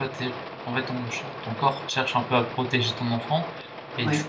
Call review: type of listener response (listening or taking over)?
listening